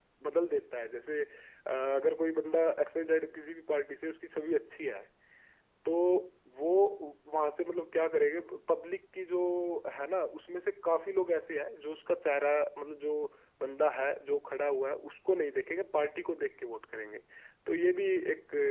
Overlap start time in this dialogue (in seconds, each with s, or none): none